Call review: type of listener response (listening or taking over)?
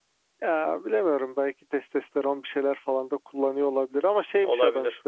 listening